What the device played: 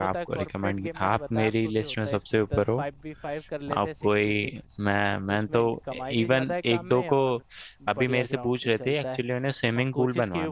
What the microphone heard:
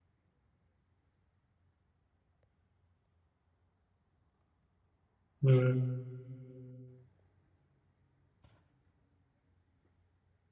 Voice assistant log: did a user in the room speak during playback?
Yes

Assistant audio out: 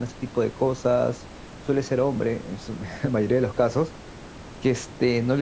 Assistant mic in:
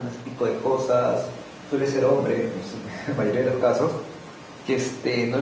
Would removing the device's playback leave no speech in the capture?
Yes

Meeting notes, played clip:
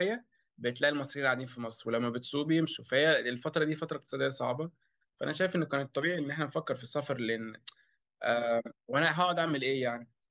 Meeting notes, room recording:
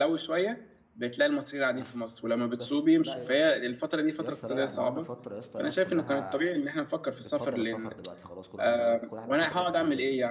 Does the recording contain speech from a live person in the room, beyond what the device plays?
Yes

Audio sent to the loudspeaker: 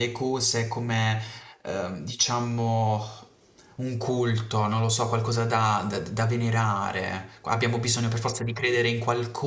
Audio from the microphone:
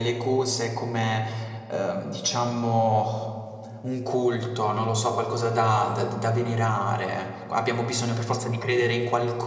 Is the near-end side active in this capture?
No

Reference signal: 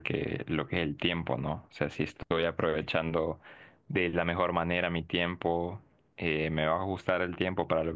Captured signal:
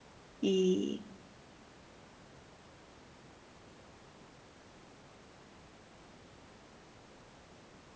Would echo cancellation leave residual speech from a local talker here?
Yes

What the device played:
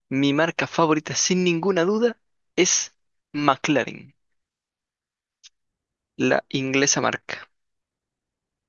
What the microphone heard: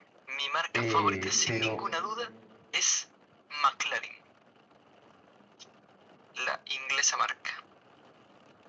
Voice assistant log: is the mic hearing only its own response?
No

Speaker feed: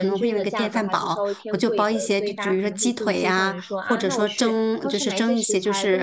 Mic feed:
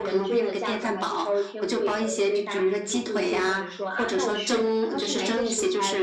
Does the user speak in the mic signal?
No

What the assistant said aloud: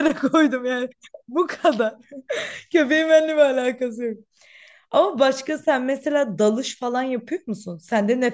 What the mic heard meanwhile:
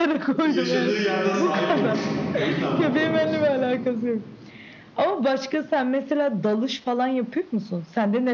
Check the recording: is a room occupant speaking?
Yes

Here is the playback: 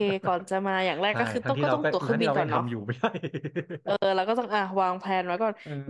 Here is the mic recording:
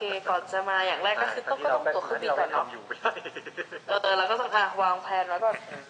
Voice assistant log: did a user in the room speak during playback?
No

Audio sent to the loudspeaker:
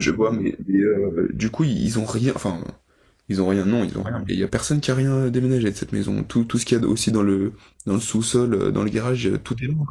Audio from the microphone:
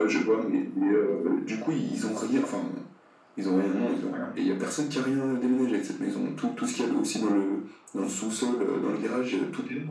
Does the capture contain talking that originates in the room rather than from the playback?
No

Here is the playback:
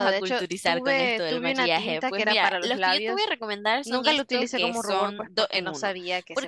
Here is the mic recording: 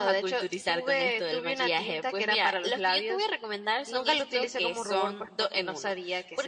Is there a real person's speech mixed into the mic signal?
No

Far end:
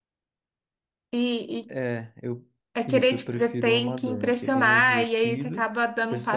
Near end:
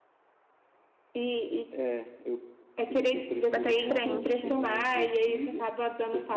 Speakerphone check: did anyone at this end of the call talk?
Yes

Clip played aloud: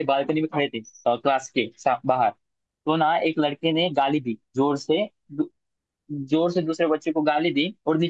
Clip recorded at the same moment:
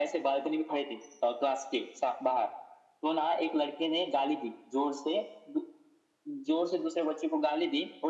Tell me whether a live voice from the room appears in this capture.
No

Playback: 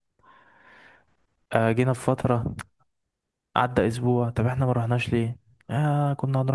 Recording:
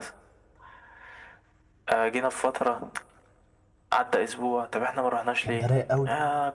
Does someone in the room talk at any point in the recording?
Yes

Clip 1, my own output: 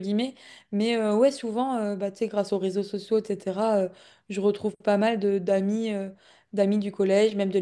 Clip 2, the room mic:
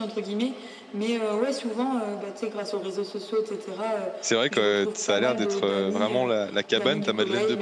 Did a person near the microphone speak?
Yes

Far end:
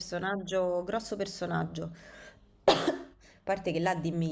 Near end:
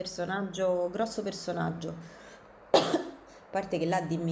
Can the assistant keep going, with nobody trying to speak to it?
Yes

